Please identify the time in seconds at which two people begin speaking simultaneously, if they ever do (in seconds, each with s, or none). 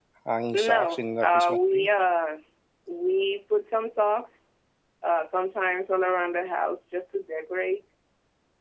0.5 s